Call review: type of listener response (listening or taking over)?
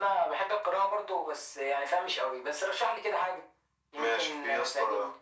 taking over